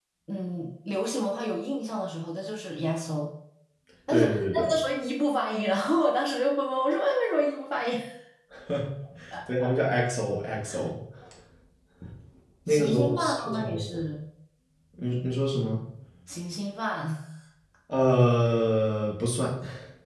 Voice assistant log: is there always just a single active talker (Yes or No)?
No